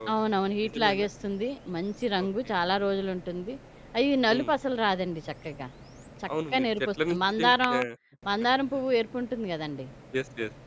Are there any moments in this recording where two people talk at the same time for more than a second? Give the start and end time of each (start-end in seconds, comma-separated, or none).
6.5-7.7